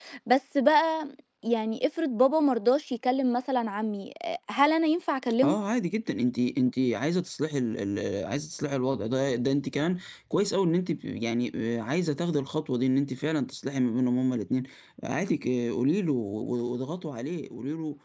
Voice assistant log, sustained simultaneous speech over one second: none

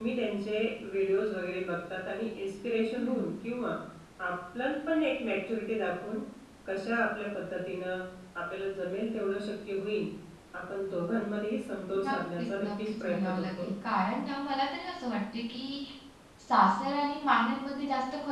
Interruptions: present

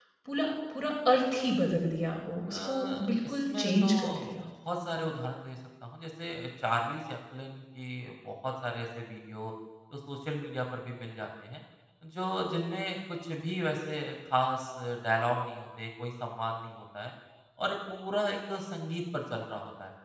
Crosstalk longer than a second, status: present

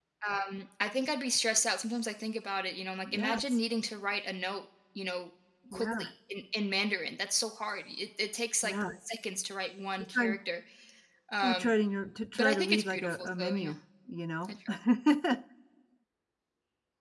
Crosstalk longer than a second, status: present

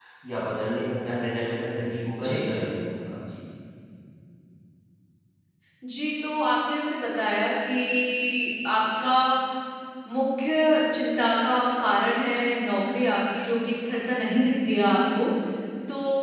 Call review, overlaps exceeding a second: none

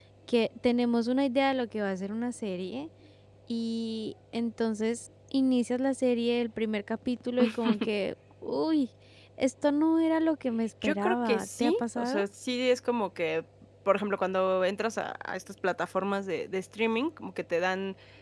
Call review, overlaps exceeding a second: present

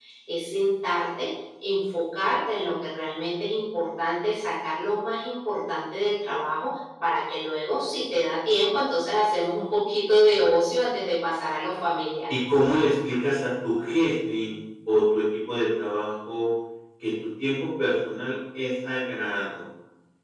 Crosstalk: none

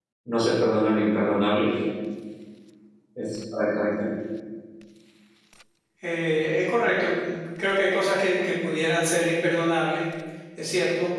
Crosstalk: none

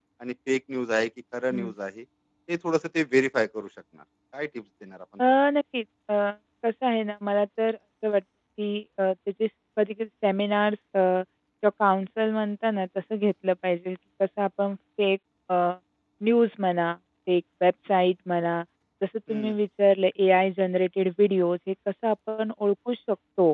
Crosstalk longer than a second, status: none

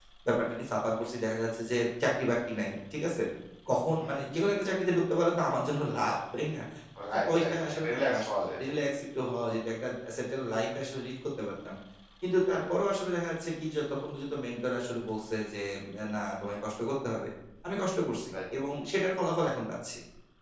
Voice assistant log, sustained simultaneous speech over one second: present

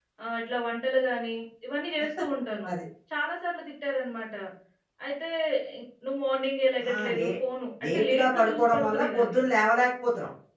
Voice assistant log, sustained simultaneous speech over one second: present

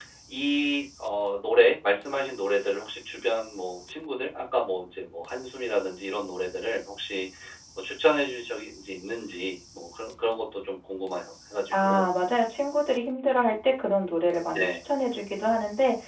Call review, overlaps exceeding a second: none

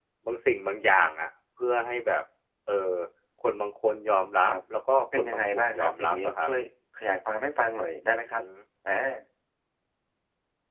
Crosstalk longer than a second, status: present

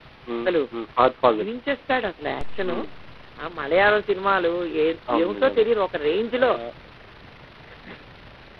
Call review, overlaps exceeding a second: none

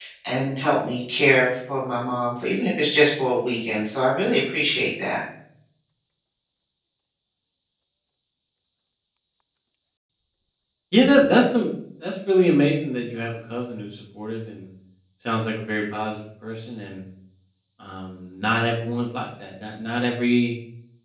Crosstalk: none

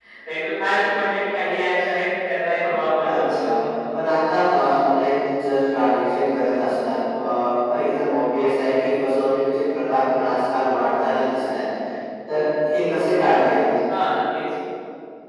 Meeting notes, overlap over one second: none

